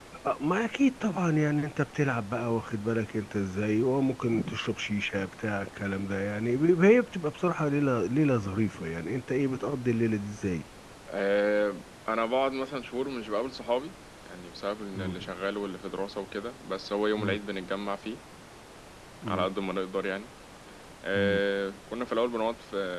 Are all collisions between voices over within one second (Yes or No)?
Yes